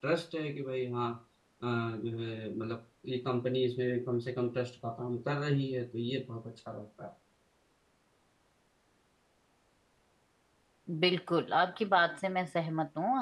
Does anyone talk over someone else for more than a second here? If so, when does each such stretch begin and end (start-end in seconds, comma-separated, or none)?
none